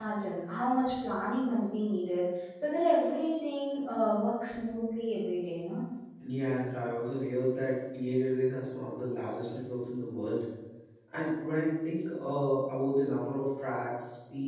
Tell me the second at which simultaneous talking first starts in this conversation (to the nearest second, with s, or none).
none